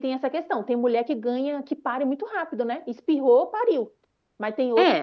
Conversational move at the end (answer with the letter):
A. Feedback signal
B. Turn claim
B